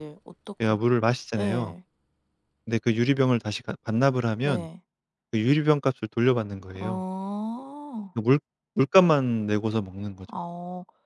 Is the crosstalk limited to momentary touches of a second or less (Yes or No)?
Yes